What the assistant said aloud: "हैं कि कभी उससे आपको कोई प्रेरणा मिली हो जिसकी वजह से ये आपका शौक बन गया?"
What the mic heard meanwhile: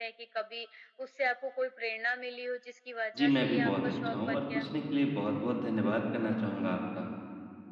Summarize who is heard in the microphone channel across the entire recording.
both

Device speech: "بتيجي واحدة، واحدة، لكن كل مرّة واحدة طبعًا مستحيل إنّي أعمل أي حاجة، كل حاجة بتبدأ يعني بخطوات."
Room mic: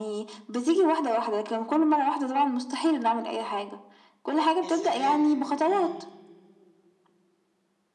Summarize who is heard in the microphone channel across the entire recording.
both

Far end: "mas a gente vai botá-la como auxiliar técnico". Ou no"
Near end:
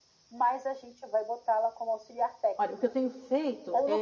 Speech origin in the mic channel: both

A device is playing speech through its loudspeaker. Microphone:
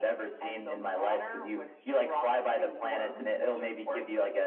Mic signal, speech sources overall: echo only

